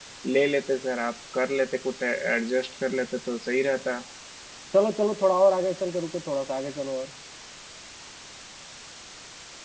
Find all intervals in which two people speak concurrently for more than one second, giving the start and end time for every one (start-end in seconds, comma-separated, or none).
none